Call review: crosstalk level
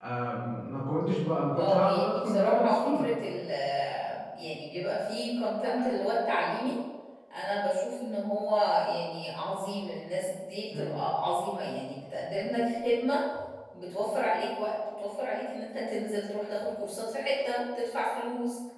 present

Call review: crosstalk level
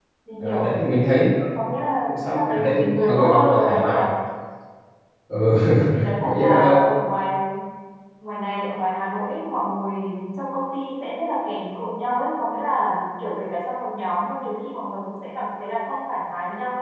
present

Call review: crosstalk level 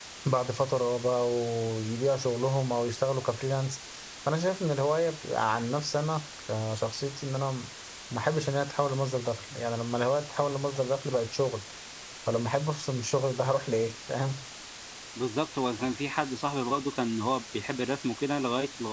none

